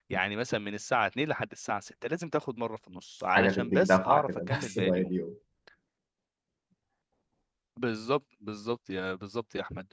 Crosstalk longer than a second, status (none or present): present